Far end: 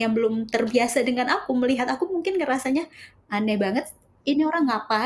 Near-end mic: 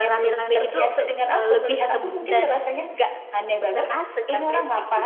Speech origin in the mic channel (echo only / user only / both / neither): both